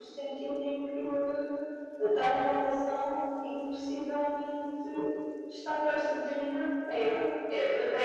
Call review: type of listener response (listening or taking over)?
taking over